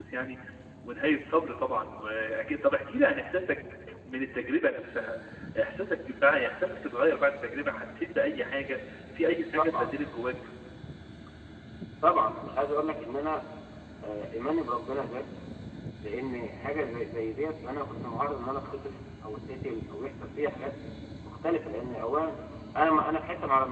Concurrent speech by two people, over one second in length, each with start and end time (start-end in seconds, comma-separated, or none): none